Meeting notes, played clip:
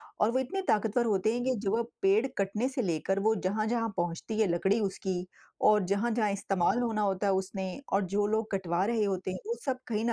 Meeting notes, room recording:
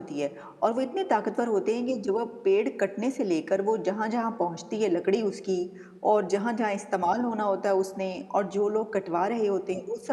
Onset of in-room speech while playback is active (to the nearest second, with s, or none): none